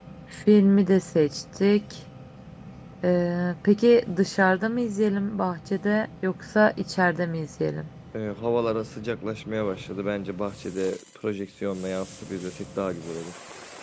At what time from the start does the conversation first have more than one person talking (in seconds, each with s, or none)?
none